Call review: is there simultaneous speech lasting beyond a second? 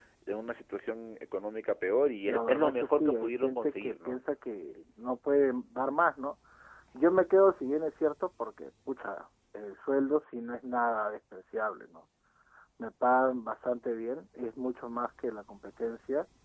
Yes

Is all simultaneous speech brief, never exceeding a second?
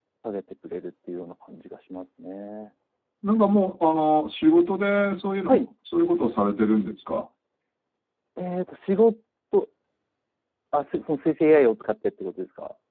Yes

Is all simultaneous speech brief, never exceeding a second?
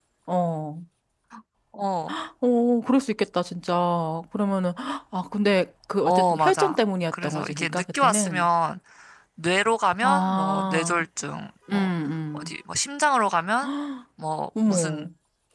No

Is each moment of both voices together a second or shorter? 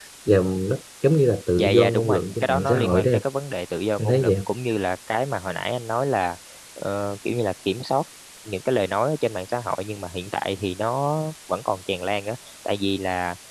No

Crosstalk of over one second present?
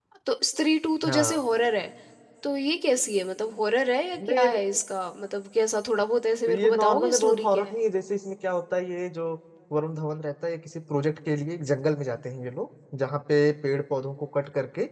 Yes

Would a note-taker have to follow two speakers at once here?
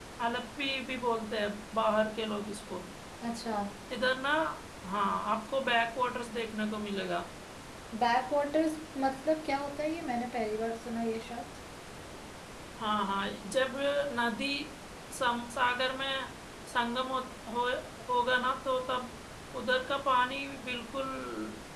No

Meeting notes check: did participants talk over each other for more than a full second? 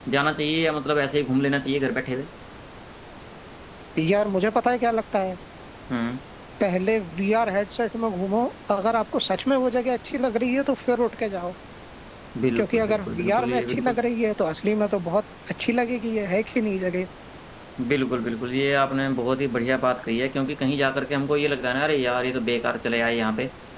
Yes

